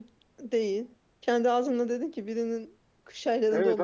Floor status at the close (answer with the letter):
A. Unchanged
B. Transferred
B